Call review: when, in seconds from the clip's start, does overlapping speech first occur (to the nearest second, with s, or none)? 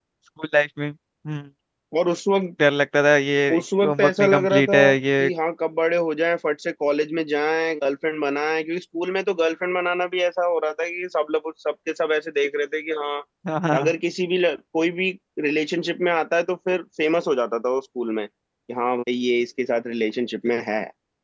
4 s